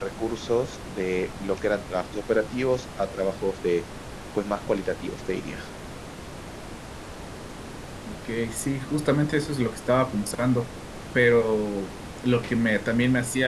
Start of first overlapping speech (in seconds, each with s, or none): none